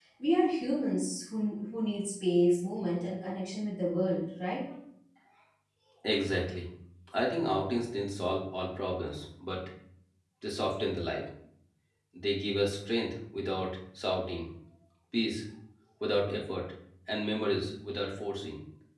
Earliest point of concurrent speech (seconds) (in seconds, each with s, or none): none